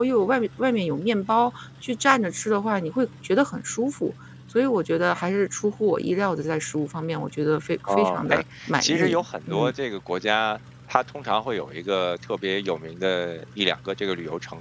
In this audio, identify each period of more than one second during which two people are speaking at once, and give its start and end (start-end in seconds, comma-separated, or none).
7.9-9.7